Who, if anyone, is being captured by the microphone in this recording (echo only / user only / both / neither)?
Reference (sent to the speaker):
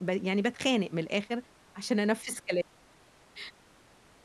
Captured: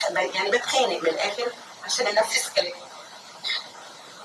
echo only